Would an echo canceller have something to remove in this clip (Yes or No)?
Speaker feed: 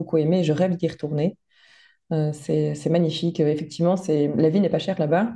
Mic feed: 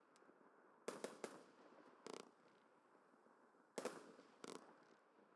No